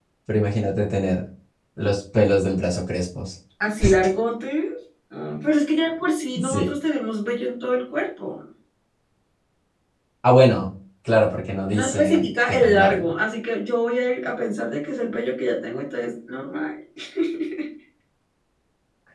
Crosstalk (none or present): present